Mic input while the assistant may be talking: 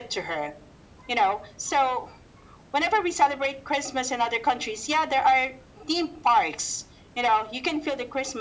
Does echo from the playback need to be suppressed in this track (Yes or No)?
Yes